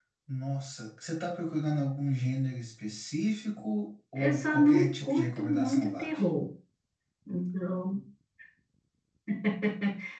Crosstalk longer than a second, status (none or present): present